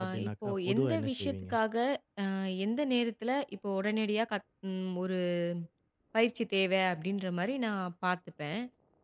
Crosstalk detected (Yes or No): Yes